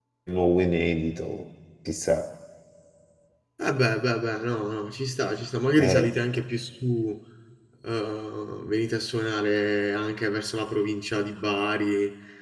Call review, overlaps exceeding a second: none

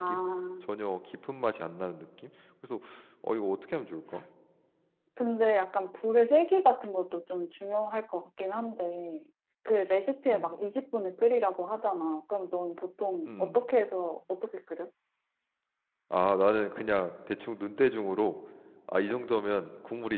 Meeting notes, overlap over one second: none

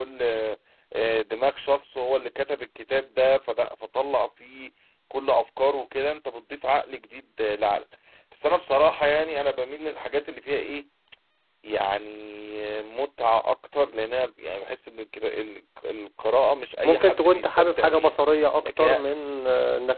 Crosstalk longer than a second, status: present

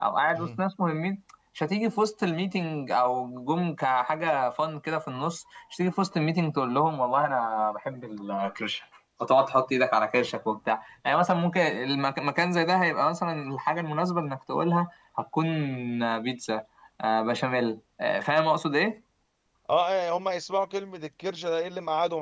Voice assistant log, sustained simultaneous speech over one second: none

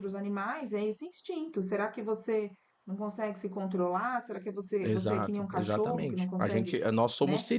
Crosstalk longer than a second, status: present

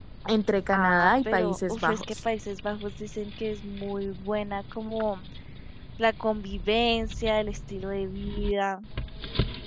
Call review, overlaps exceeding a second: present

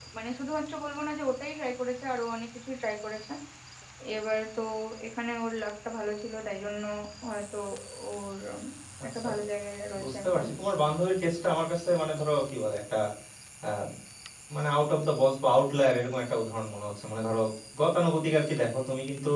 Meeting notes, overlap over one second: none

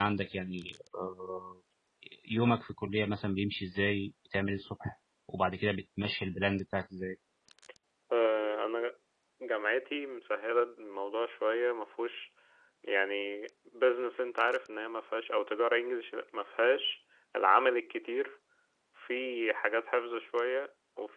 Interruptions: none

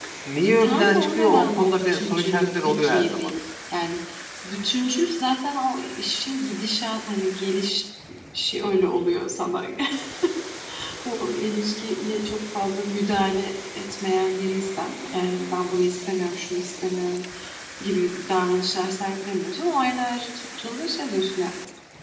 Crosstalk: present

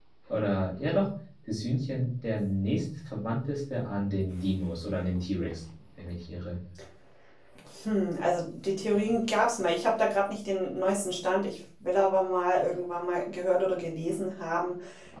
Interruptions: none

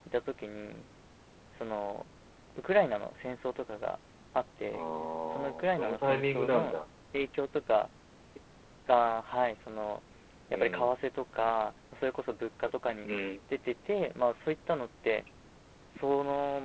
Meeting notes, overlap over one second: present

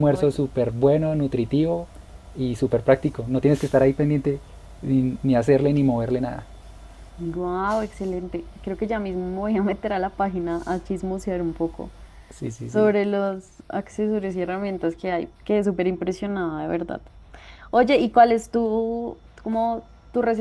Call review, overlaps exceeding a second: none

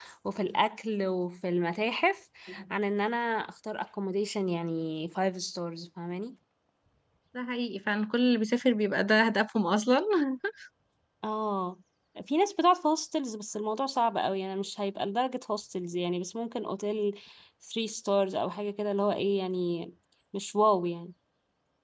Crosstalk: none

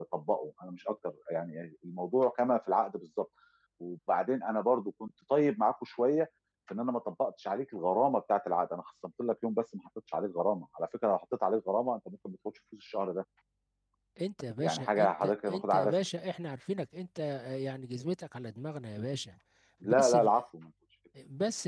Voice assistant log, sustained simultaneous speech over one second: present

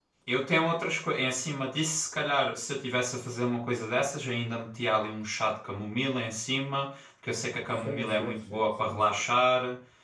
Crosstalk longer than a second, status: present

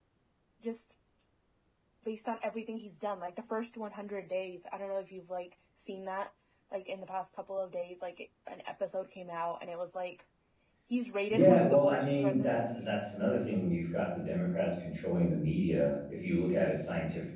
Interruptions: present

